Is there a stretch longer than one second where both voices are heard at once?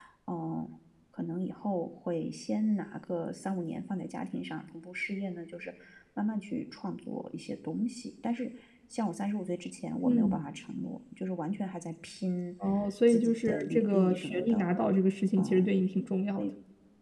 Yes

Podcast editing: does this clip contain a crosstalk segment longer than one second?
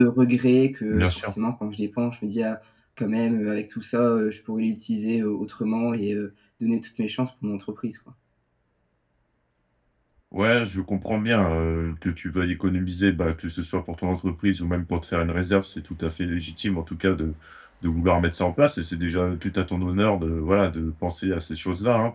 No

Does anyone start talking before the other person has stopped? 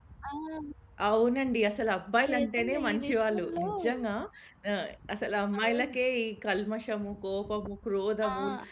Yes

